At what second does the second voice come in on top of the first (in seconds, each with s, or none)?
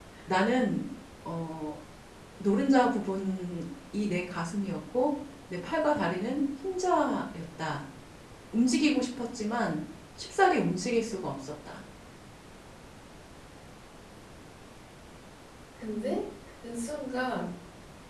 none